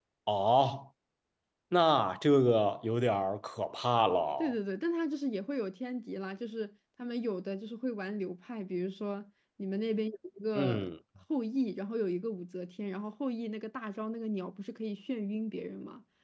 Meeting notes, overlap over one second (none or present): none